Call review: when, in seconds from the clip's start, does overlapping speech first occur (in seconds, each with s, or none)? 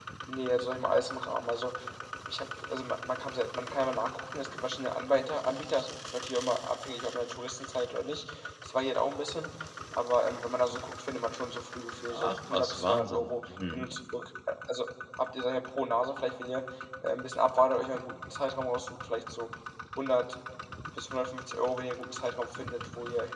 12.0 s